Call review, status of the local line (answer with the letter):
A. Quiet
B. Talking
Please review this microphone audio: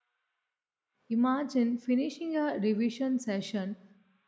B